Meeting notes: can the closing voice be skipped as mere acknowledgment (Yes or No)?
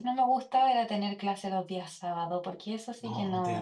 No